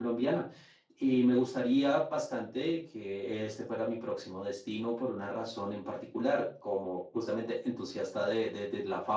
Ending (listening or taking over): listening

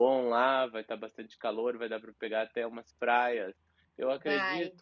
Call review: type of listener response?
listening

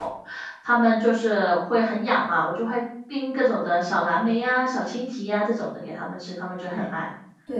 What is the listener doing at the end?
taking over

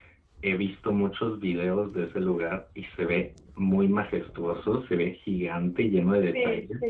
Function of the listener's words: taking over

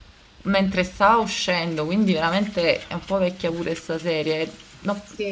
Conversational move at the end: listening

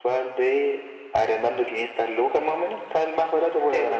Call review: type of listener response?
taking over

